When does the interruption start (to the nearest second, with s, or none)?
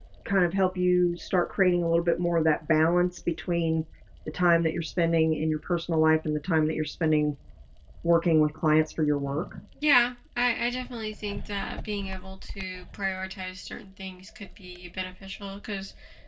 none